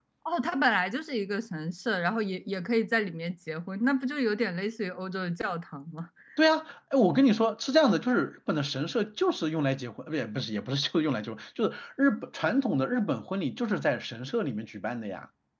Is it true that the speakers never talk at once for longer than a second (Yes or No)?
Yes